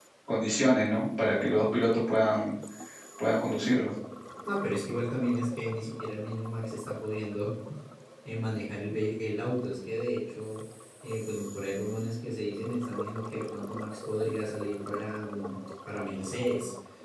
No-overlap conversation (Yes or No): Yes